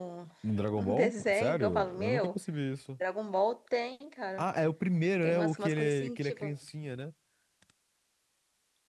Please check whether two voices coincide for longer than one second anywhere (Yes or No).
Yes